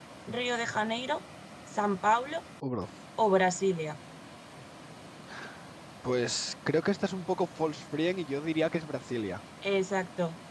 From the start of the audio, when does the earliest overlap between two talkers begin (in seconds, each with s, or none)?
none